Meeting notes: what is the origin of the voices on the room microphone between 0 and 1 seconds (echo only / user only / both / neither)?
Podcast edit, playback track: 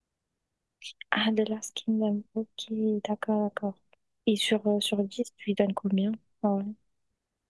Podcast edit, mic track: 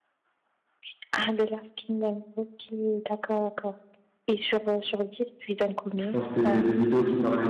neither